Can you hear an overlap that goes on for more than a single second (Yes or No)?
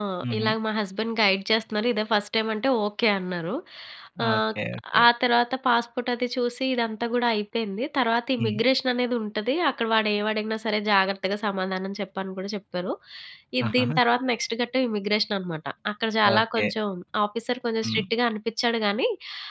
No